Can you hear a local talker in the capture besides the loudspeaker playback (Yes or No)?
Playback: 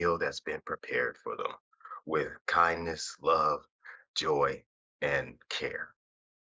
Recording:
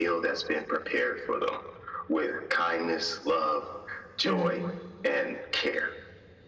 Yes